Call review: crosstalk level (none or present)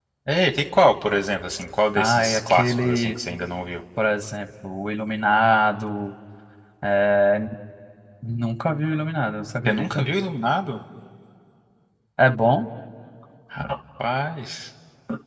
present